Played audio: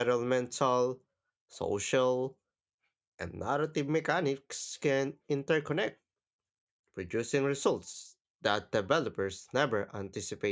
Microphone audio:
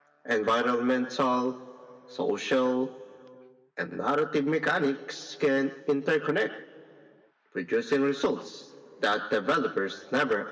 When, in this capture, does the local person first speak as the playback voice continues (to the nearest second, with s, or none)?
none